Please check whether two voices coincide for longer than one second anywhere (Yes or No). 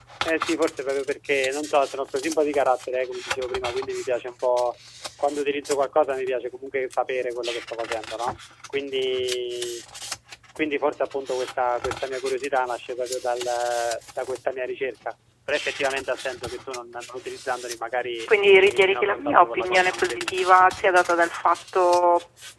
Yes